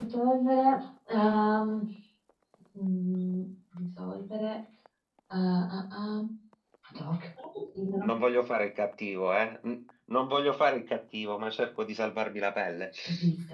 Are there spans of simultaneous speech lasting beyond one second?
No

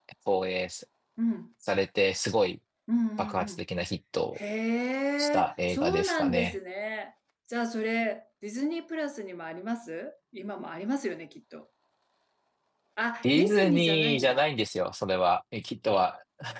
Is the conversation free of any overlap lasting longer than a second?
No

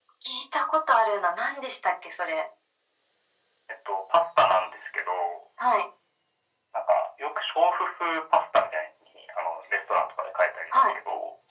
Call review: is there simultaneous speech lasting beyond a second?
No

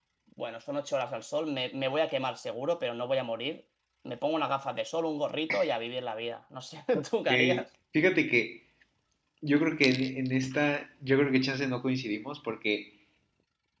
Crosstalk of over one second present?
No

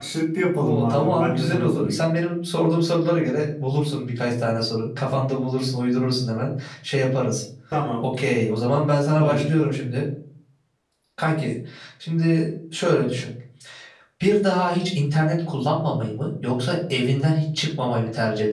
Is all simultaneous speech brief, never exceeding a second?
No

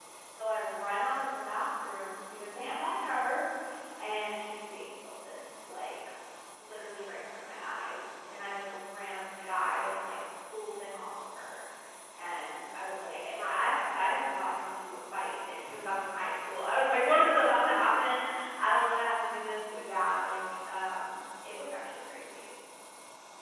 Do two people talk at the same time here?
No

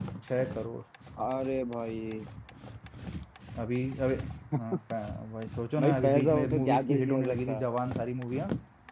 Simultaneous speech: Yes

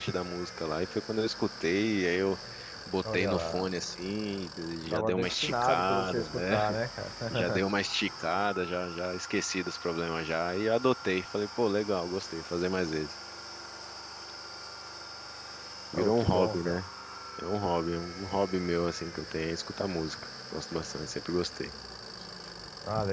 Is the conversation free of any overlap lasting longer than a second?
No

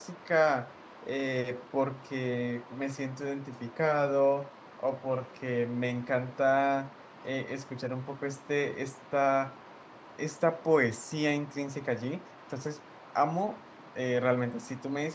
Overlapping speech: No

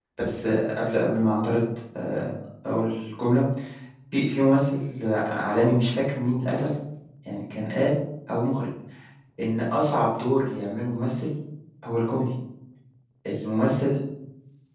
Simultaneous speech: No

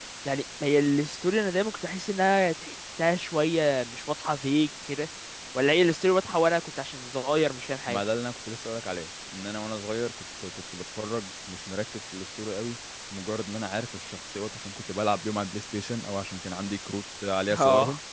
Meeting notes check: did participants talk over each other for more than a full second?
No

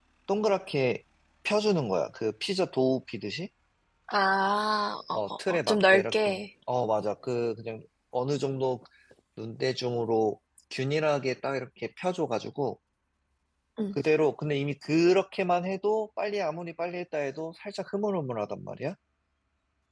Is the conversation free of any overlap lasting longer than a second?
No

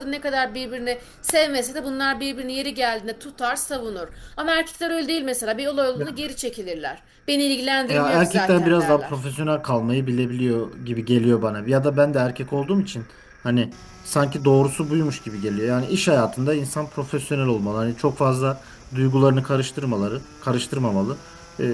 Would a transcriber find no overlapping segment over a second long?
No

